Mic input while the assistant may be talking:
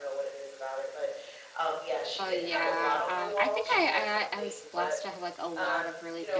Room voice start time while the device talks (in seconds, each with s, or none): 2.2 s